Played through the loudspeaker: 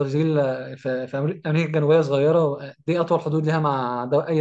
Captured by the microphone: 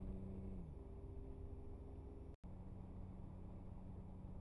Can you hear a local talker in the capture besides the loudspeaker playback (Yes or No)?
No